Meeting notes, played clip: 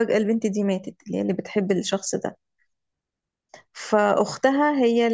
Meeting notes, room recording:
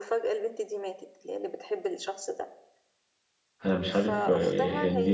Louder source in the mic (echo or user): user